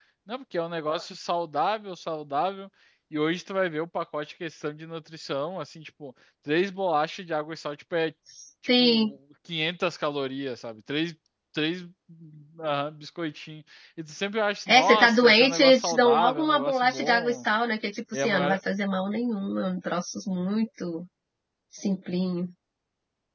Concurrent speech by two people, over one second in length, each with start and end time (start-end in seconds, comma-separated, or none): 14.7-17.4